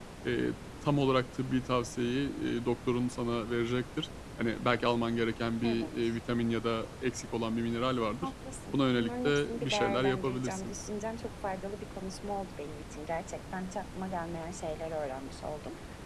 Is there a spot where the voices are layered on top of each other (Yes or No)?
Yes